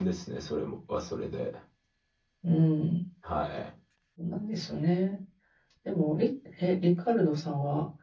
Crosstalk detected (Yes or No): No